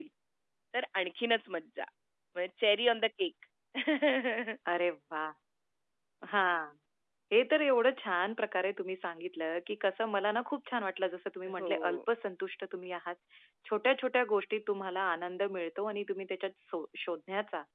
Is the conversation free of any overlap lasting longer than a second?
Yes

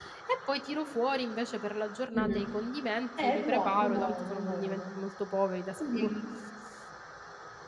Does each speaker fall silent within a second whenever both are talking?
No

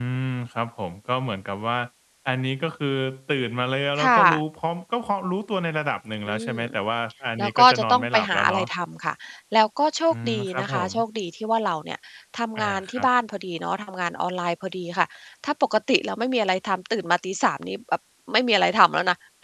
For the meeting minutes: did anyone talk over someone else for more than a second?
Yes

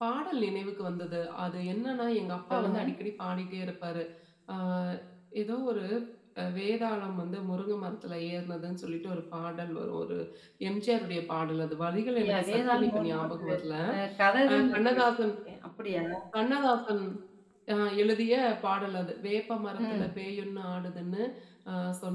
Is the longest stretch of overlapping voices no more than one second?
No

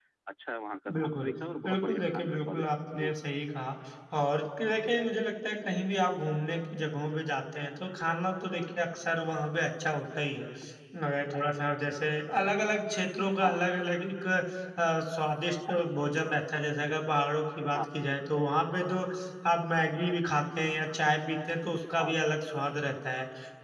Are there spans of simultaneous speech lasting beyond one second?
Yes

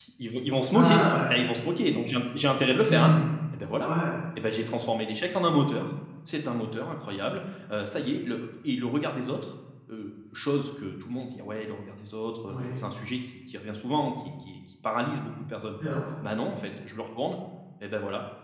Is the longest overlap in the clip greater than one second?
No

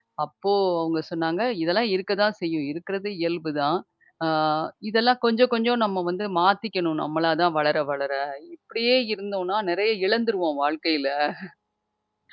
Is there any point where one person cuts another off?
No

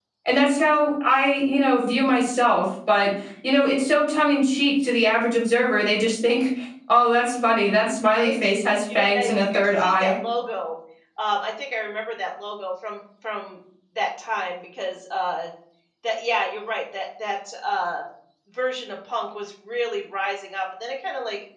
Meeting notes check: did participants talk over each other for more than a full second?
Yes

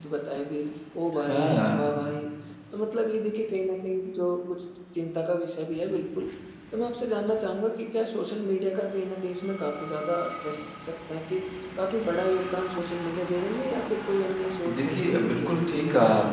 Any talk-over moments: Yes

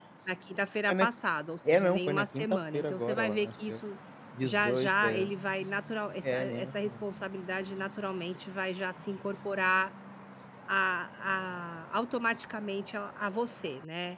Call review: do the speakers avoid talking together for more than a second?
No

